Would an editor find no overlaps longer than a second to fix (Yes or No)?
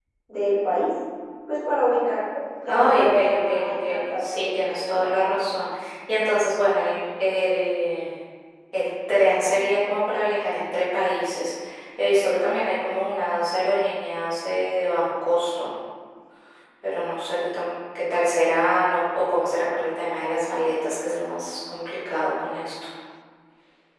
No